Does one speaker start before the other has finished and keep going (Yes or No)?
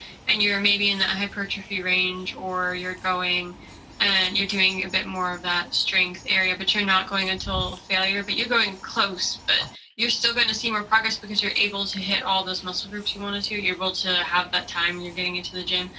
No